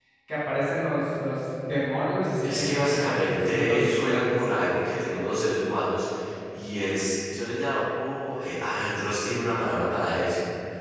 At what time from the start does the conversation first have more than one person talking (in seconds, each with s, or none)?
2.4 s